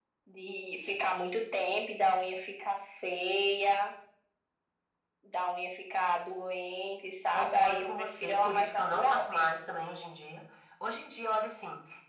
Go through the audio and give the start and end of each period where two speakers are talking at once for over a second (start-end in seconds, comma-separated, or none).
7.3-9.5